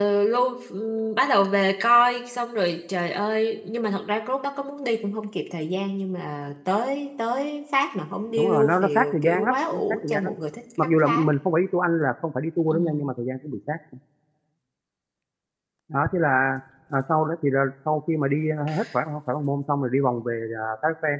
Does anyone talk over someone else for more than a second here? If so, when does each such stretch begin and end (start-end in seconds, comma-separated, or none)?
8.3-10.3